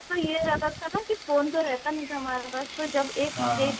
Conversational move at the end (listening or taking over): listening